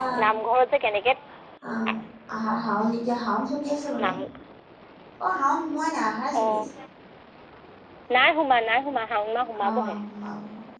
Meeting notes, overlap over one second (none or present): none